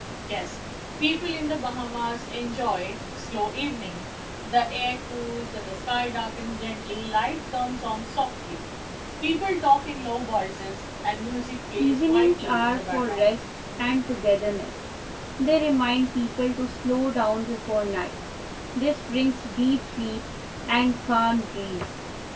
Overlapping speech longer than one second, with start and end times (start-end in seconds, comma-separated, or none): 11.8-13.3